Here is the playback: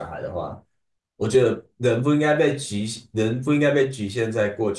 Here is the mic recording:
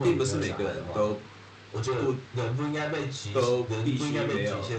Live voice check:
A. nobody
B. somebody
B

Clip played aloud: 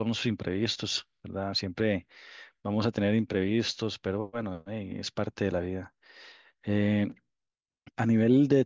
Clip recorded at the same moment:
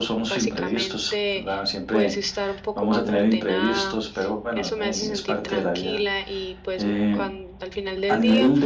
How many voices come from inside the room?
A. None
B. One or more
B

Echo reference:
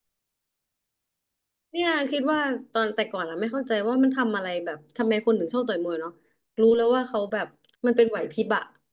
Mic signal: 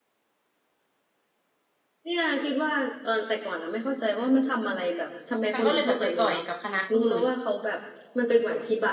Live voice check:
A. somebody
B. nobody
A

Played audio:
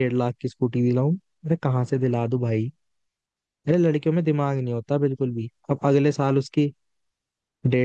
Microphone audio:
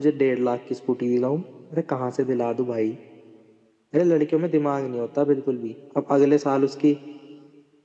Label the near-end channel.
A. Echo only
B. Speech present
A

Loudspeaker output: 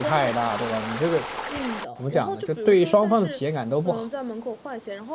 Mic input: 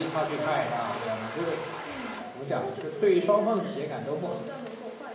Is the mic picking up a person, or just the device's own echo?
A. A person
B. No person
B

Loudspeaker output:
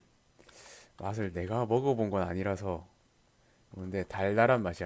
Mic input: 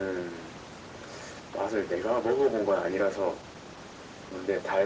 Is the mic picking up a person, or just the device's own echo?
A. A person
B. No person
B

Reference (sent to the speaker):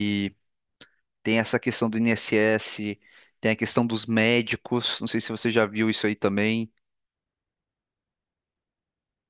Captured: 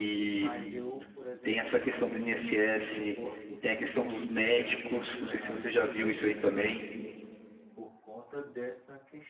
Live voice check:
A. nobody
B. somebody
B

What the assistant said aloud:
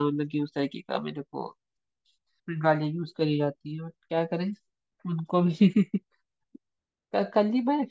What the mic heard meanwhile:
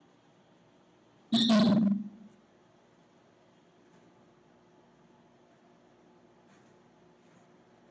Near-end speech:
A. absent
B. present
B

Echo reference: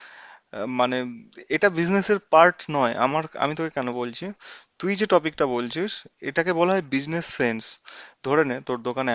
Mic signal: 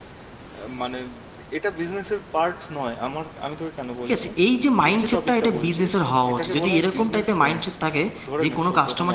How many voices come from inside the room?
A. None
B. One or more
B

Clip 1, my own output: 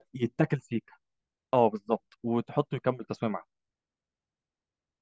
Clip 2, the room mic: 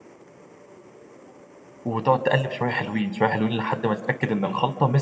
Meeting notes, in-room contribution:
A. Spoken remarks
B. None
A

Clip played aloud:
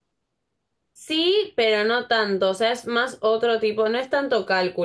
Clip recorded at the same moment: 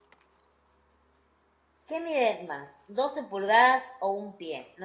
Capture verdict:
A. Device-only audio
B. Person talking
B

